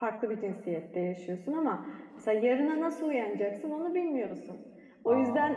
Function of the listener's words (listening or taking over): listening